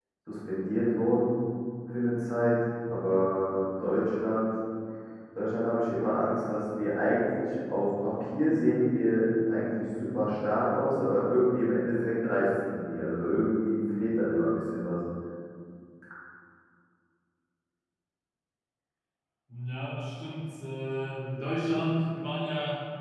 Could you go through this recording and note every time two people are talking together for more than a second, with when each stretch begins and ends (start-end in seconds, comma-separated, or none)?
none